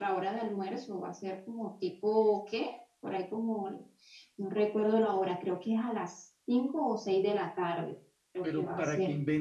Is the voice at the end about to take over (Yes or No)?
Yes